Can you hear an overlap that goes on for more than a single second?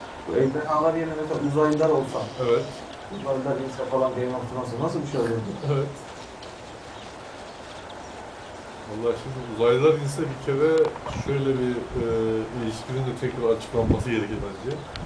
No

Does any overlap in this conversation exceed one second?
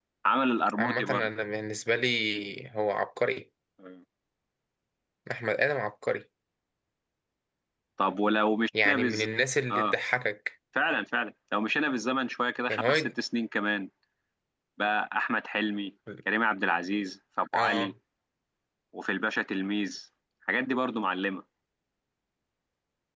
No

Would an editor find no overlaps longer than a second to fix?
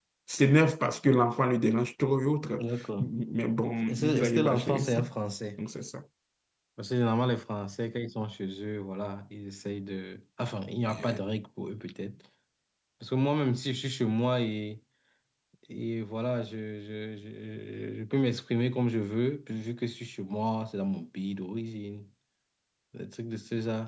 No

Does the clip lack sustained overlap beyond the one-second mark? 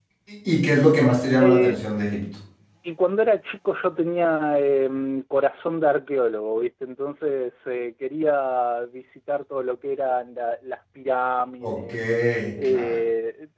Yes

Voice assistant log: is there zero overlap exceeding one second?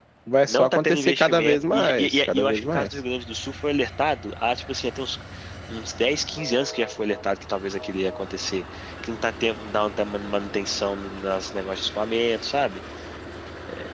No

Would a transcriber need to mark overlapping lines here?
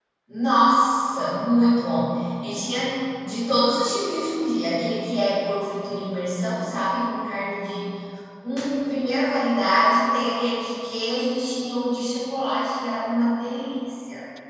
No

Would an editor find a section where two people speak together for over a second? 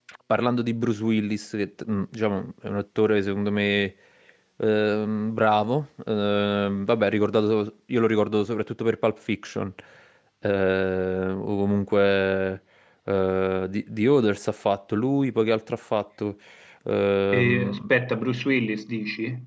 No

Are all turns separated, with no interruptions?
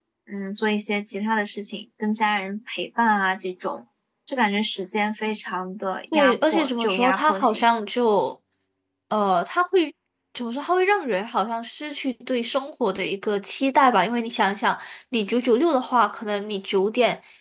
No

